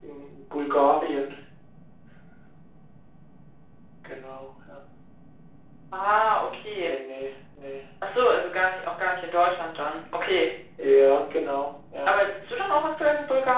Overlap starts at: none

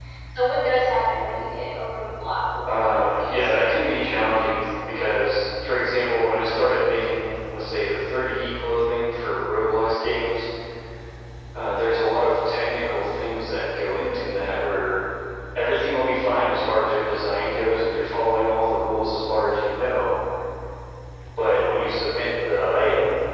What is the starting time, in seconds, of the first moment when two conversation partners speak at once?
3 s

